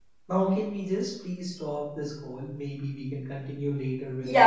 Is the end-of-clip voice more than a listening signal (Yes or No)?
Yes